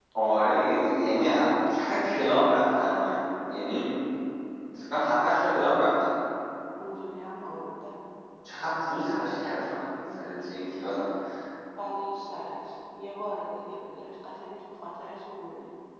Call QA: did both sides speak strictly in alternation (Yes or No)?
Yes